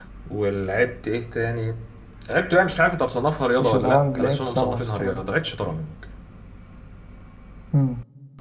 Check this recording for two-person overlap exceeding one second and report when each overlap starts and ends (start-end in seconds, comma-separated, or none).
3.6-5.2